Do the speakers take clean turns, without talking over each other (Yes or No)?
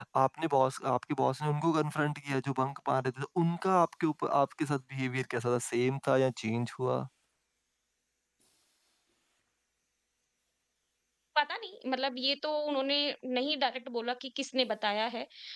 Yes